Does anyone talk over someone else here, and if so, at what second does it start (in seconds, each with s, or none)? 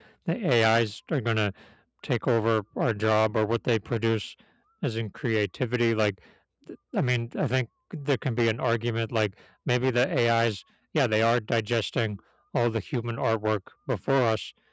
none